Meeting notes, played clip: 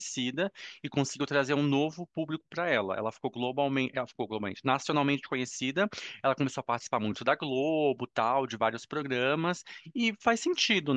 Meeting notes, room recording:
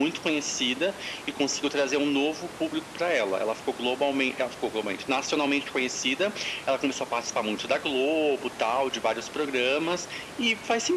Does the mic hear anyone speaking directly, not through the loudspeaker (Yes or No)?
No